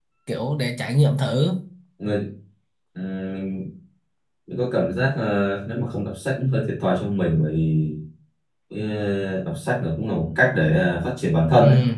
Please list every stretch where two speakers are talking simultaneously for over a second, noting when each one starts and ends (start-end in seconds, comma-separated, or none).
none